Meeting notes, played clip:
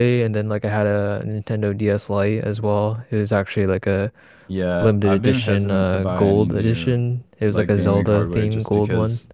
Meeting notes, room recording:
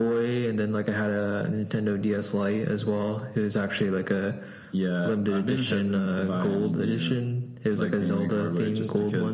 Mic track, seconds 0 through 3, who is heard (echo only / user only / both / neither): echo only